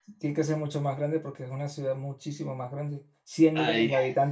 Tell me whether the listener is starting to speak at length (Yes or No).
No